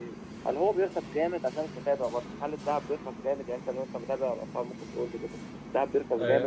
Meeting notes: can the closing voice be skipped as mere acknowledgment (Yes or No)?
No